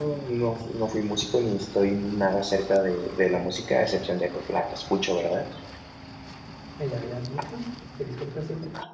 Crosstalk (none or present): none